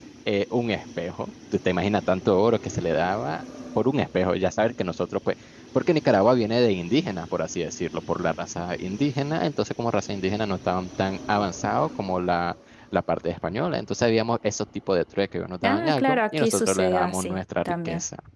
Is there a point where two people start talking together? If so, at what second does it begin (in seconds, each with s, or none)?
15.6 s